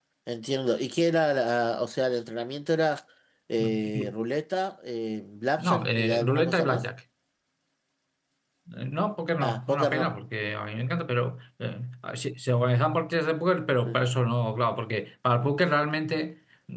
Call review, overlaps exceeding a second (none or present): present